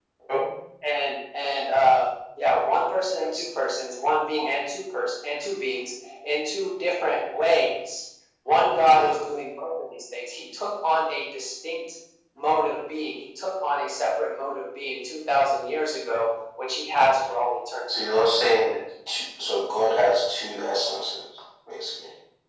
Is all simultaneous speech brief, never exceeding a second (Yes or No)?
Yes